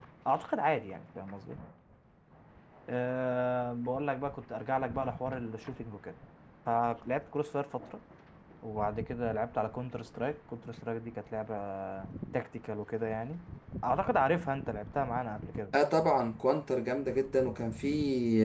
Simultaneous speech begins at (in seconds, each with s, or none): none